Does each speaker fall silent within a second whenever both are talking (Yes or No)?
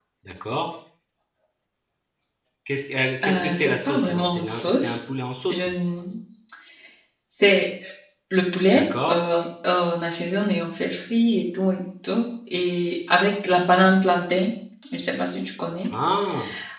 No